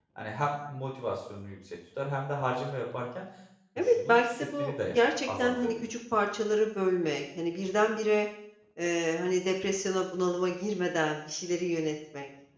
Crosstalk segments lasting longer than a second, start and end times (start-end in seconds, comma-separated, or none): 3.8-5.9